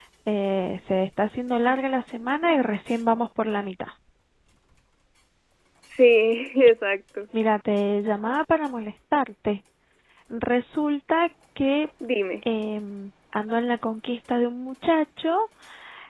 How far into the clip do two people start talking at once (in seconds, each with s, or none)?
none